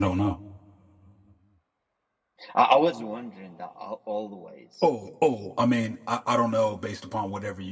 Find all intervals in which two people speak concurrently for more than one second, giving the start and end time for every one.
none

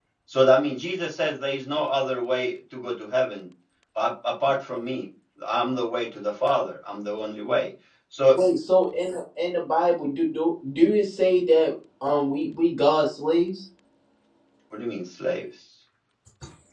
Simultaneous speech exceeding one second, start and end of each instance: none

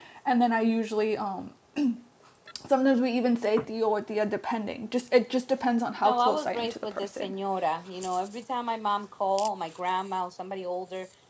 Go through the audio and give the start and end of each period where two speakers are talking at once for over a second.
6.0-7.3

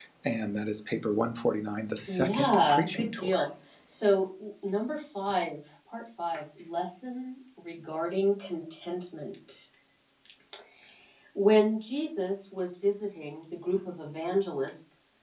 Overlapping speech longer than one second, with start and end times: 2.0-3.5

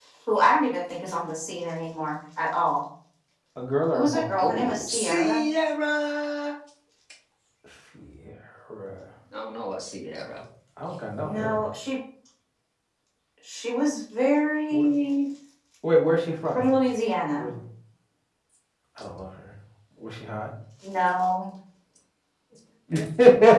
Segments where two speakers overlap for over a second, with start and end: 3.9-5.4

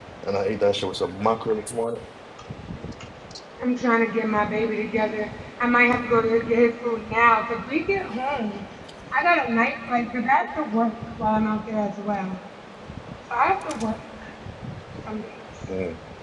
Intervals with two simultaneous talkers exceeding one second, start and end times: none

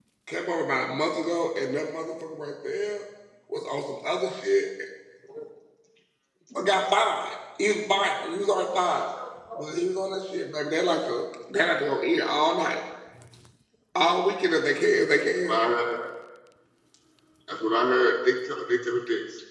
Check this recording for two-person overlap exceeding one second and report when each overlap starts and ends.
none

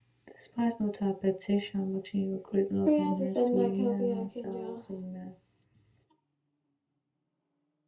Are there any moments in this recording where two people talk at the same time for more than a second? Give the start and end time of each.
2.8-4.8

